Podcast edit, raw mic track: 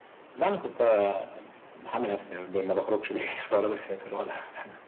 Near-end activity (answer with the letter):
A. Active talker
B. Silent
B